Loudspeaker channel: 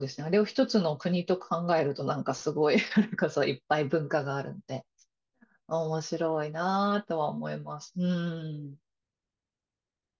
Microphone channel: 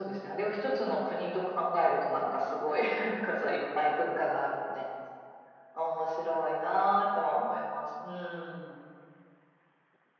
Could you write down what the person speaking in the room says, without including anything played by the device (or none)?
none